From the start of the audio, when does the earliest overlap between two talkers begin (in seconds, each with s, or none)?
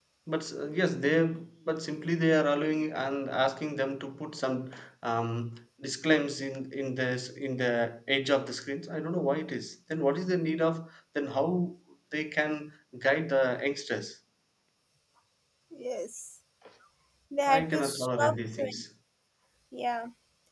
17.5 s